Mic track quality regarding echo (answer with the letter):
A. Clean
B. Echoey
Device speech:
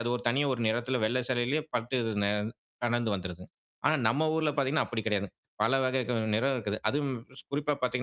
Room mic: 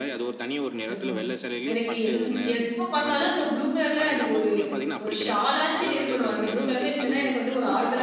B